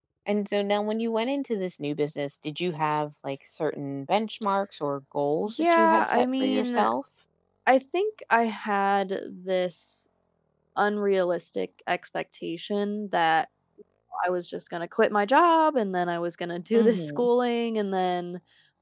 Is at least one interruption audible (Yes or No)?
Yes